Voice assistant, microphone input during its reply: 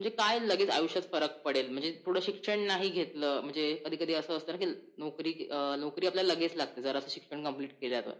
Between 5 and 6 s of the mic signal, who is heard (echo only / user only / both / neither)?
echo only